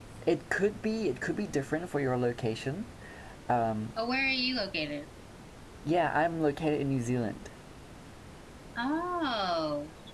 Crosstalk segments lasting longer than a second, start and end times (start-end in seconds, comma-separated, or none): none